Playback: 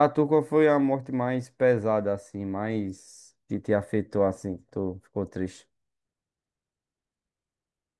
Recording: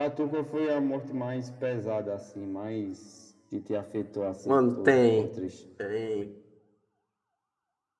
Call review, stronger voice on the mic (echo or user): user